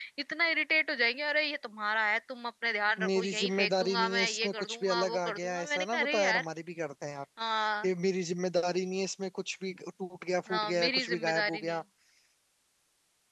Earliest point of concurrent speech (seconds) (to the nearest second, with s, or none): 3 s